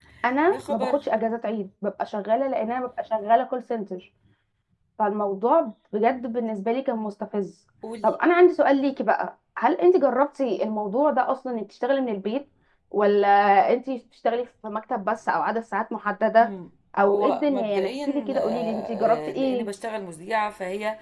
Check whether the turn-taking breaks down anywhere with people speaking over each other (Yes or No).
Yes